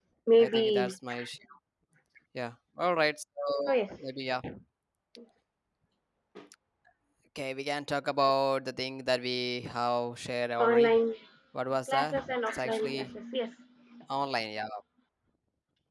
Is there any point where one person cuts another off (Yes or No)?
Yes